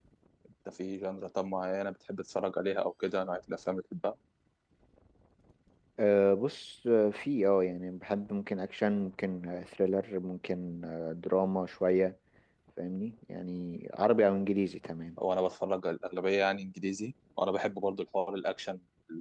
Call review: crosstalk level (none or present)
none